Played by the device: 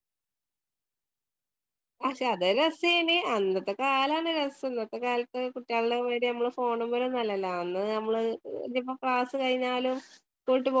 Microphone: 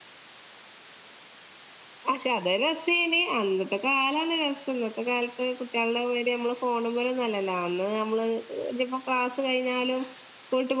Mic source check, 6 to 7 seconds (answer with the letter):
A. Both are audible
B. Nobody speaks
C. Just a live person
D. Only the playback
D